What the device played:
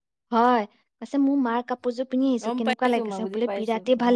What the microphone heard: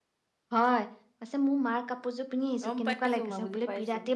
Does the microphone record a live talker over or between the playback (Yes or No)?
No